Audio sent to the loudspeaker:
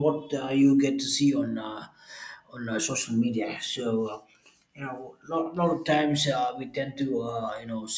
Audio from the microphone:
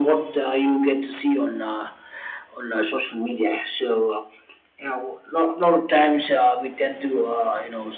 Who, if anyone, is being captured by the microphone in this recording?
echo only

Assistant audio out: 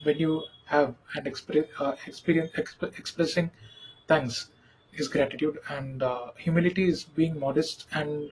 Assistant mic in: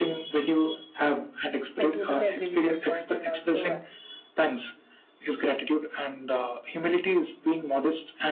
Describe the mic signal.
both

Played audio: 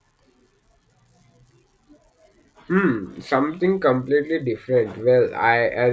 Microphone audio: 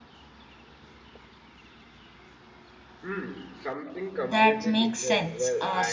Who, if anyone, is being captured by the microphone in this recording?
both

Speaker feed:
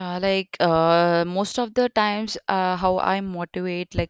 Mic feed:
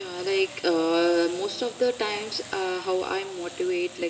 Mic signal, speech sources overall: echo only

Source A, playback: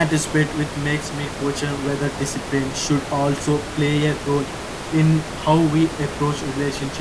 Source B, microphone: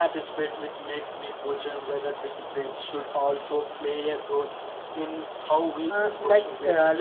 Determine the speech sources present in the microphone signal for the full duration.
both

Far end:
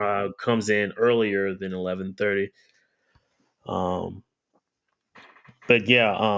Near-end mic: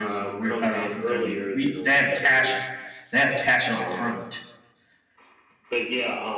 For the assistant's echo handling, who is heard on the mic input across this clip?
both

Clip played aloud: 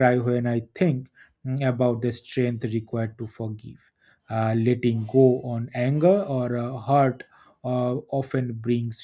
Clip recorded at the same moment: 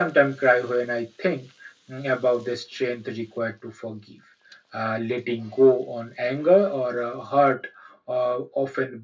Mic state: echo only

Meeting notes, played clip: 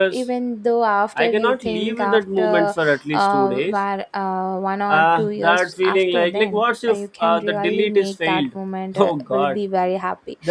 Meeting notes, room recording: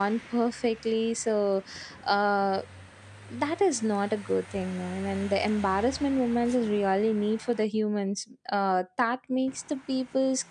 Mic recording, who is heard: user only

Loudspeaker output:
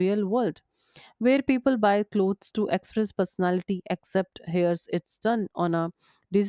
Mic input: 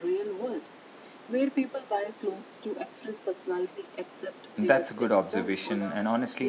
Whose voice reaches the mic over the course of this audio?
both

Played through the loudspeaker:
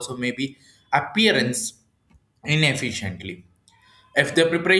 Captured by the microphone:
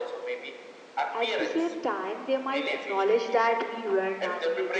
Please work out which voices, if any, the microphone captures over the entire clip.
both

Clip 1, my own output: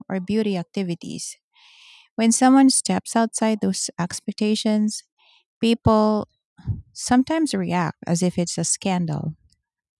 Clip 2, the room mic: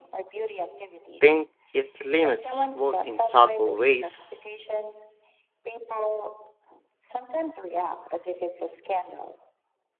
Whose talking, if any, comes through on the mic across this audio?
both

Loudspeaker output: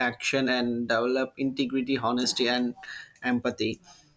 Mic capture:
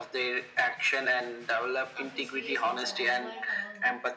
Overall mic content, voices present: both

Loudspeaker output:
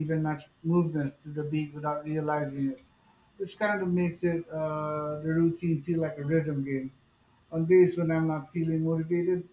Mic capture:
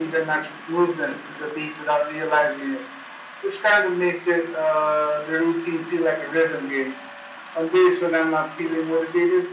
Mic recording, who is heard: echo only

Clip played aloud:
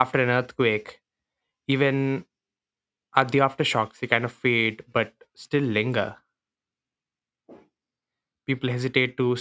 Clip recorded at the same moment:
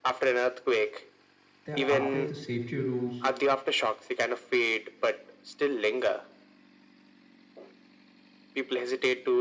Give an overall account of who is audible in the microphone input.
both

